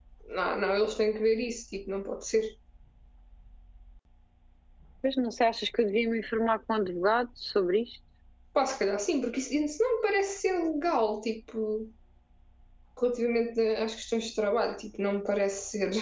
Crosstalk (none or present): none